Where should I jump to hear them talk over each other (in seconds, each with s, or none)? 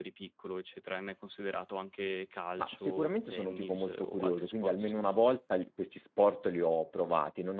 2.6 s